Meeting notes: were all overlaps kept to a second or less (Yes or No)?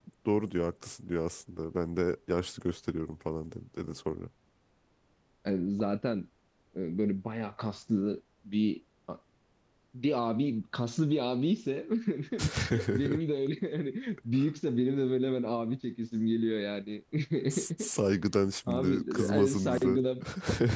No